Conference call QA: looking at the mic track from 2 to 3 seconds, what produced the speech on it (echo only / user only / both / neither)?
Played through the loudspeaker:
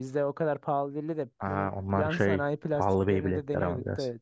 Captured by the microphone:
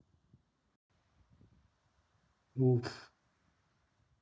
user only